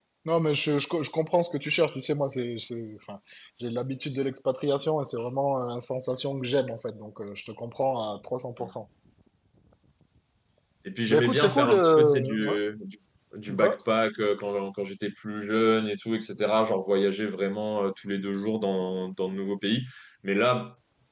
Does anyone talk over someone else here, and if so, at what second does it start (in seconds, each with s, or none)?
11.1 s